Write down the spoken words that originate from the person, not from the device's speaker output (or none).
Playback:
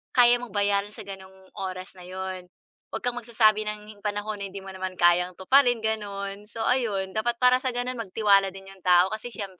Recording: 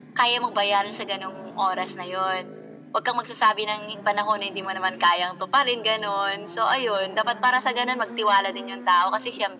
none